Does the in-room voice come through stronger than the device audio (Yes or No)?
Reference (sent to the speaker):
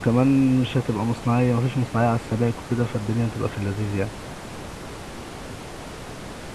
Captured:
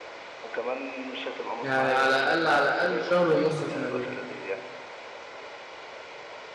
Yes